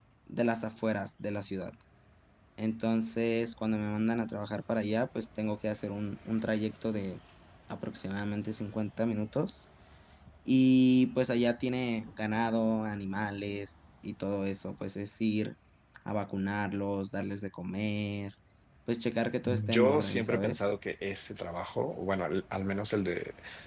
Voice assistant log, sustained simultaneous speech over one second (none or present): present